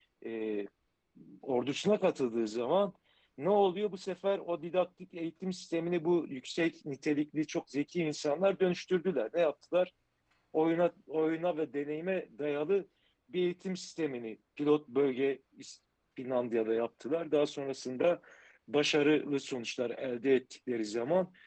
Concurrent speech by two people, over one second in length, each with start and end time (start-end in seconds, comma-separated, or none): none